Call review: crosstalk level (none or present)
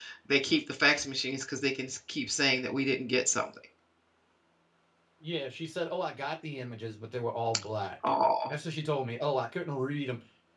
none